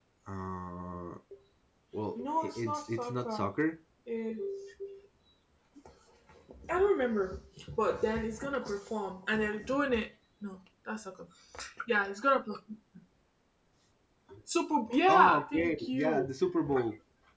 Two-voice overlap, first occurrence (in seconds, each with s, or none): 2.2 s